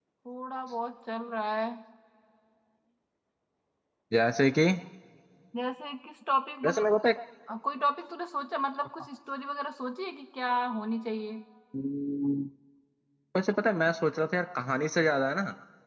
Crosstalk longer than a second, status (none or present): none